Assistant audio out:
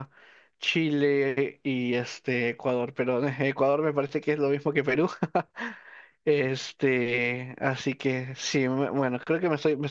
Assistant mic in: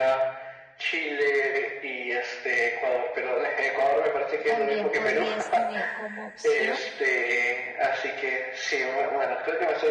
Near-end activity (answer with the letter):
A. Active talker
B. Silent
A